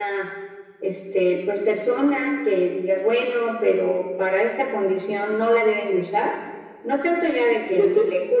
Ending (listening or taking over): listening